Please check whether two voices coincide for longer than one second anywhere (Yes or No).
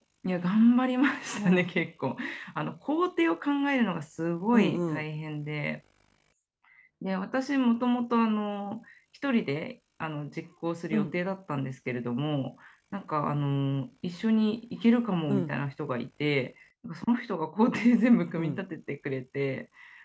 No